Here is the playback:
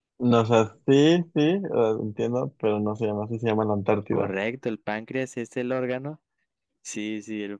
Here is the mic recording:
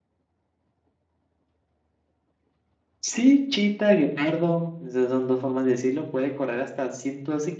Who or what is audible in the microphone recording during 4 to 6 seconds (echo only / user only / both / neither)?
user only